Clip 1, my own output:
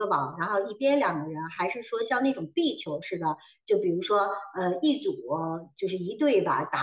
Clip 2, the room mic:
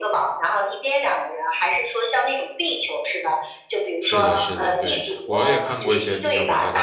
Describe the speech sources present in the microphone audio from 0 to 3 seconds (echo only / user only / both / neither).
echo only